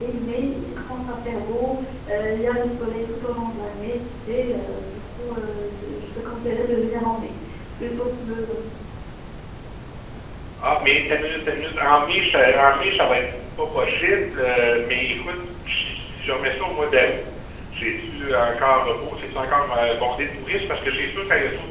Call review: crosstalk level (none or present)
none